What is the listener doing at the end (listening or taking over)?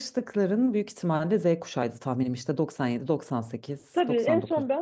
taking over